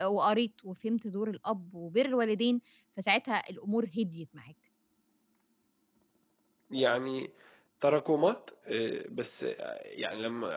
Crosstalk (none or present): none